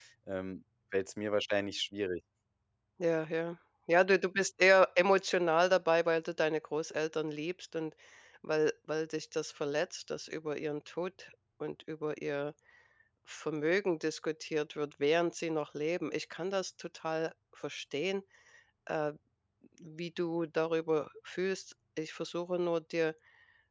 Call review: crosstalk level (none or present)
none